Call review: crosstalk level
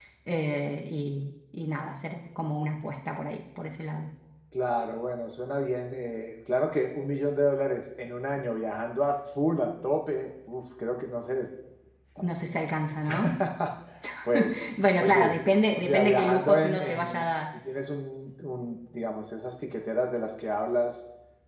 present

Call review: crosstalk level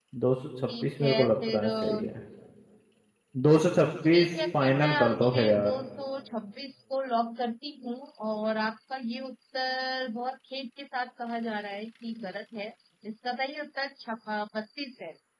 present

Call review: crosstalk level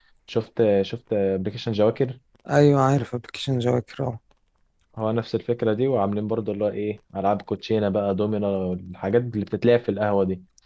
none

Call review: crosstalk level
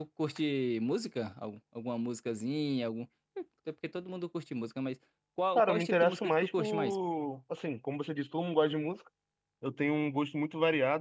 present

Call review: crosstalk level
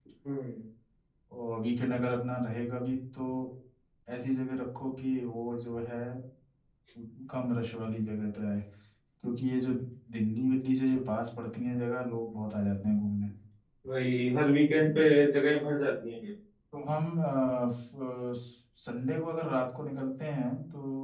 none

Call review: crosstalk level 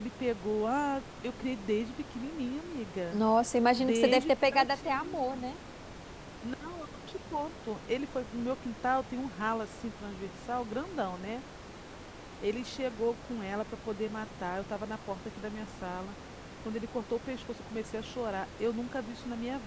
present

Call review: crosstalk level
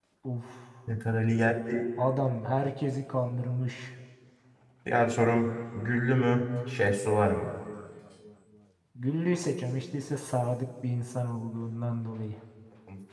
none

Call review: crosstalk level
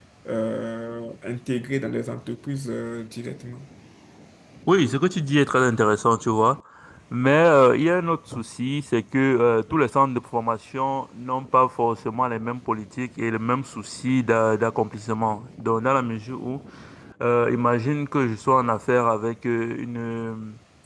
none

